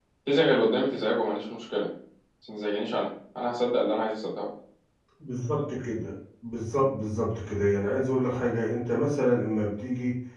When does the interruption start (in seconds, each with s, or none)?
none